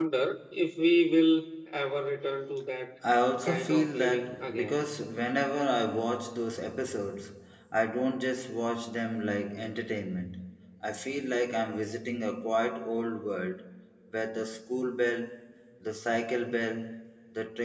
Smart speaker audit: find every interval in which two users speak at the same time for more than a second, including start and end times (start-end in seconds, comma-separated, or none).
3.4-4.8